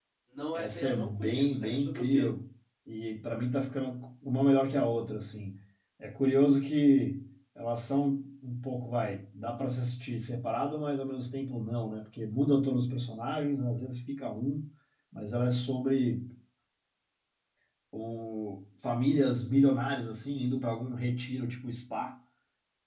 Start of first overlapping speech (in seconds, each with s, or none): 0.6 s